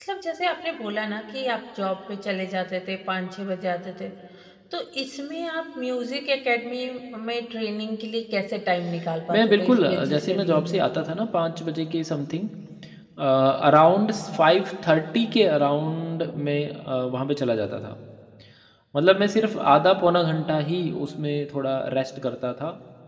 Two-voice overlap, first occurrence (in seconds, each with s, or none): 9.3 s